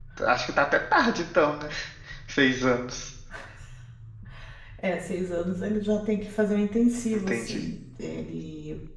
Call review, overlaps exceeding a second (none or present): none